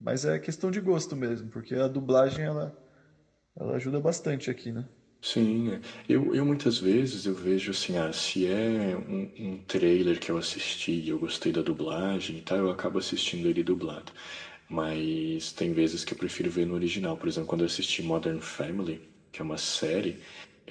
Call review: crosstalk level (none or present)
none